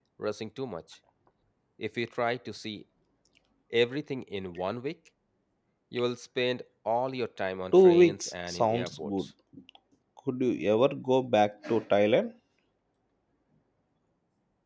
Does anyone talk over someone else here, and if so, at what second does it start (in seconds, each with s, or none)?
7.7 s